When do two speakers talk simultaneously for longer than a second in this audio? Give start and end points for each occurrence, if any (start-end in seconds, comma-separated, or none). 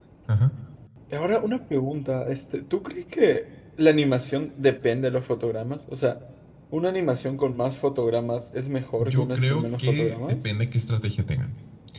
9.0-10.4